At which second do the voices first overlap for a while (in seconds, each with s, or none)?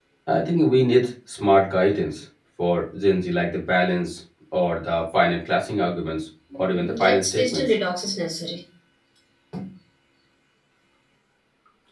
6.5 s